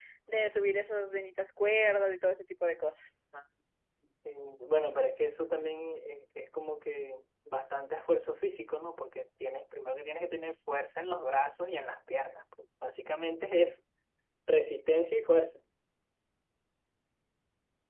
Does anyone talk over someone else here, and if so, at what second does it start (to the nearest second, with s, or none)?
none